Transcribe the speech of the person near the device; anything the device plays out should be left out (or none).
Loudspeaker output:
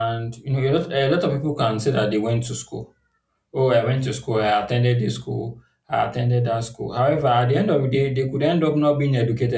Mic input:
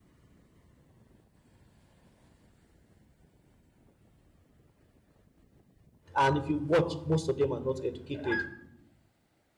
And if you watch, most of them are not educated.